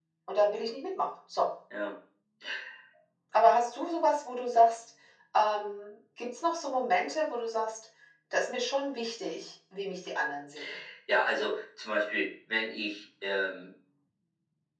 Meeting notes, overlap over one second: none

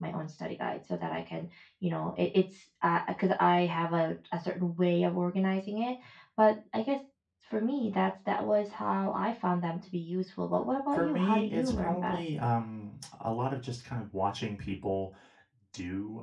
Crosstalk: present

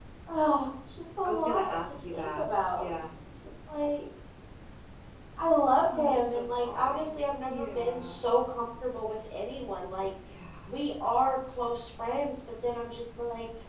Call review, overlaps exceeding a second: present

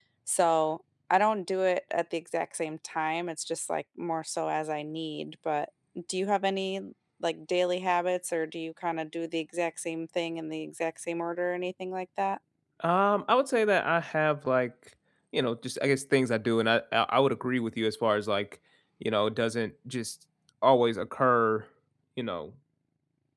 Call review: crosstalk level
none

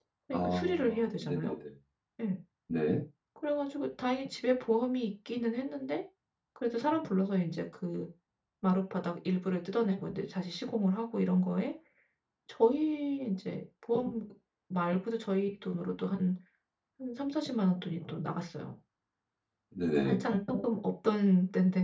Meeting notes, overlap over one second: present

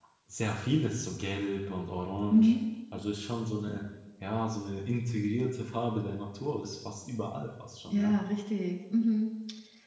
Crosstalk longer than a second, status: none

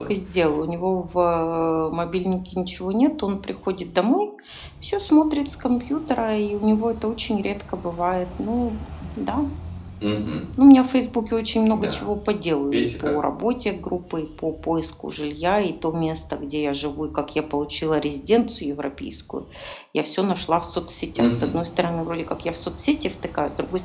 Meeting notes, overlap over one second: none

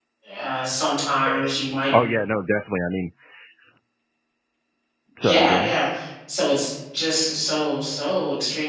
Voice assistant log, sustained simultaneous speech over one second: none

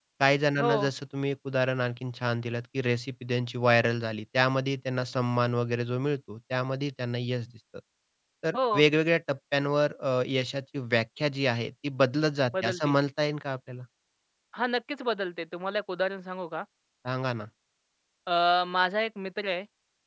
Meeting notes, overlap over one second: none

